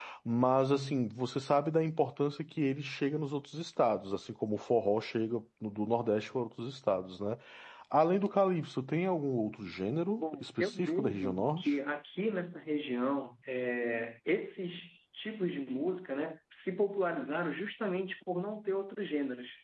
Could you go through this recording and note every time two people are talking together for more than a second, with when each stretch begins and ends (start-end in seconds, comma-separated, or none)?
10.2-11.8